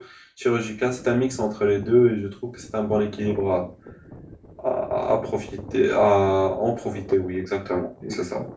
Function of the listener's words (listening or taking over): taking over